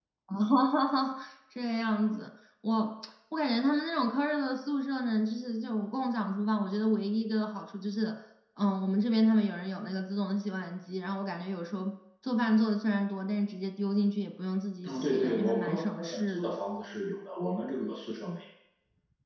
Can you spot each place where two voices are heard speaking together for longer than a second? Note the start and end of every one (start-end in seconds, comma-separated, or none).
14.8-16.6